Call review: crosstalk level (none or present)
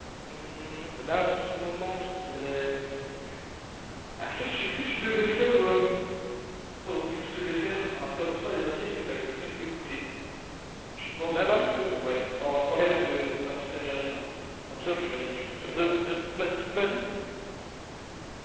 present